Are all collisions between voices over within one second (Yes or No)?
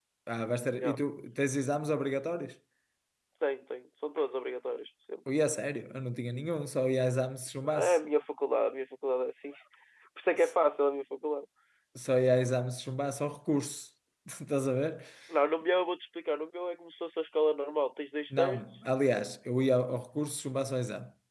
Yes